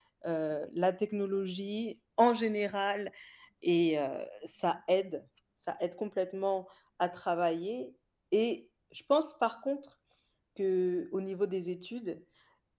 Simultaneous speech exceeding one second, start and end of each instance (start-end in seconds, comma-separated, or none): none